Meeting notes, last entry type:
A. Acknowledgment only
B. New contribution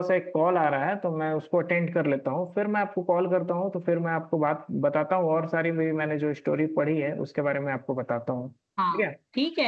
B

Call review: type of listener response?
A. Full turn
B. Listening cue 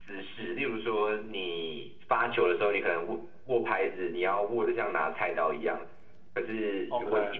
B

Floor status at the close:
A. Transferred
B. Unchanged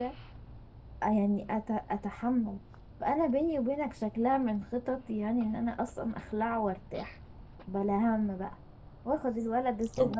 A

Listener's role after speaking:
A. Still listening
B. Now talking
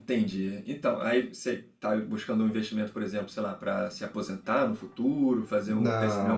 B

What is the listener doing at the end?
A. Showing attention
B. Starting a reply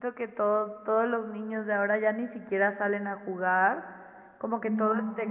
A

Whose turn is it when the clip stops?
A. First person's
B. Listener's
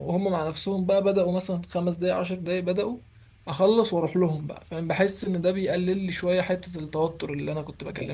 B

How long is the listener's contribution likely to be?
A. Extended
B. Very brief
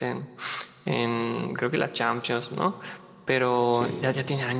B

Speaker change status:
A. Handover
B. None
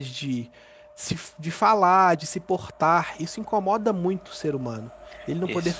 B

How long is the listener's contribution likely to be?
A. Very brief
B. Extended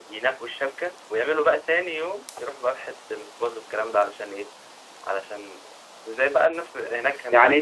B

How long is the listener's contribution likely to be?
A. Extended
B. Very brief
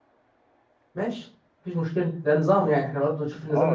A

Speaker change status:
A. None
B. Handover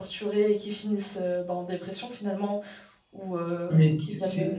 B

